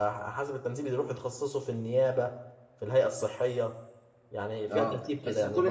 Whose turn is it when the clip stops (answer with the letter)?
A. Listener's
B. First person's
A